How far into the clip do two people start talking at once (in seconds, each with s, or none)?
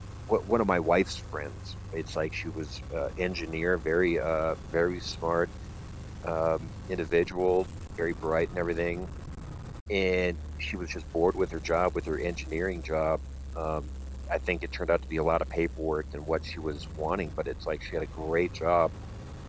none